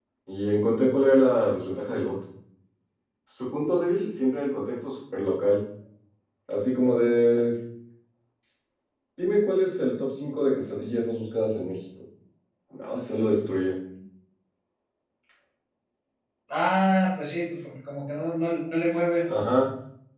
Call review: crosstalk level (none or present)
none